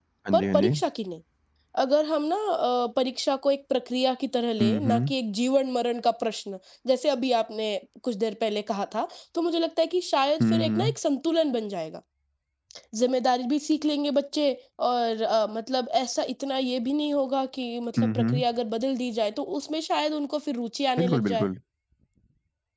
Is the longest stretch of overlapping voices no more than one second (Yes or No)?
Yes